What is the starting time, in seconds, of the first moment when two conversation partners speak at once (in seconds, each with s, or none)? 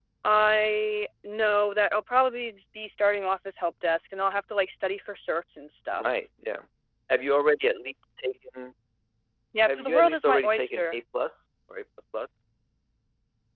9.7 s